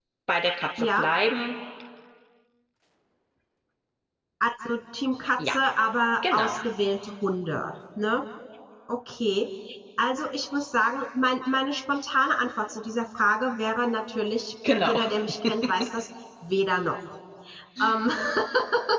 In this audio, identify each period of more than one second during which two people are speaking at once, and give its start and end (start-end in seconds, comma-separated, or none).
none